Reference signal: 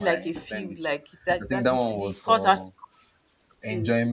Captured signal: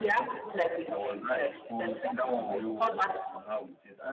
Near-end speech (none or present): present